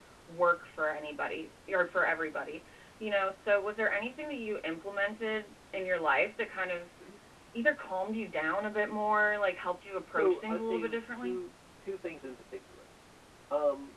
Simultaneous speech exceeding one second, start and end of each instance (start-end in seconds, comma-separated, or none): 10.1-11.4